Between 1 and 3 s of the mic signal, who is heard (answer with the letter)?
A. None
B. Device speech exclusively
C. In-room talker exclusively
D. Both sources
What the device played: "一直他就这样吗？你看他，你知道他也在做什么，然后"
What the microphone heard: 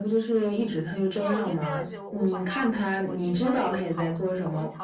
D